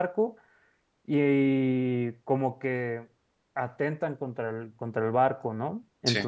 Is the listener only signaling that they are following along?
Yes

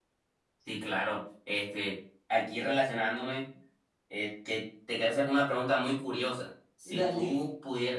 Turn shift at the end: No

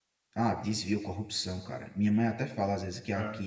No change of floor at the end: Yes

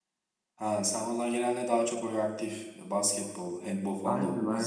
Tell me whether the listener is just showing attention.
No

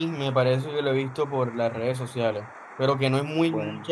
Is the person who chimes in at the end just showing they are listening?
Yes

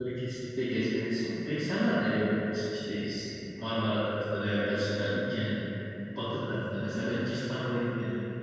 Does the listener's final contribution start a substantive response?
No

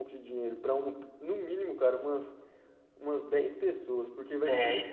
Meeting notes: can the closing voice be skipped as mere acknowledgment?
No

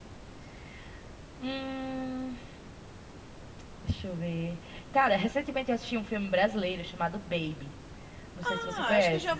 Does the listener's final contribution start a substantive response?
Yes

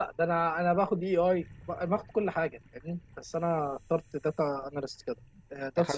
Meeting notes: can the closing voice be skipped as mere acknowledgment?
Yes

